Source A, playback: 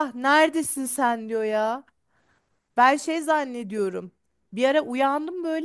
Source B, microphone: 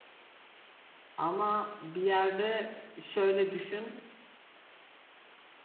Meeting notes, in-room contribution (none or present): present